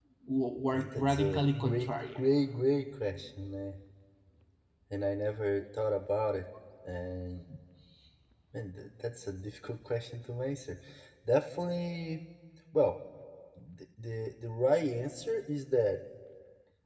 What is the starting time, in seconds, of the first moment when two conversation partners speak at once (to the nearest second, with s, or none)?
1 s